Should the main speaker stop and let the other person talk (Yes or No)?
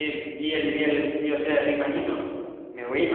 No